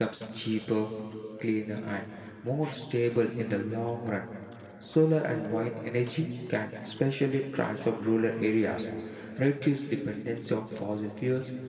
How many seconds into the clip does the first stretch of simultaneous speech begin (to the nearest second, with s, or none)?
none